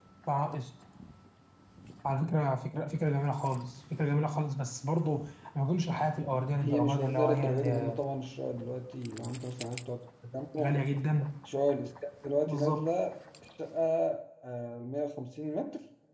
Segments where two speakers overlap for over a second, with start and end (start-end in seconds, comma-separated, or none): 6.6-8.0